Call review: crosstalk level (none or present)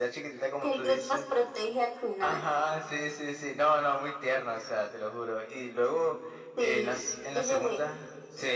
present